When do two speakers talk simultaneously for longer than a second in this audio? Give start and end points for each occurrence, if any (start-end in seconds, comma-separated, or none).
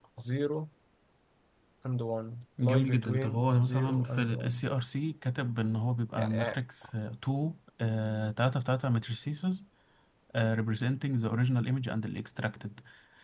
2.6-4.6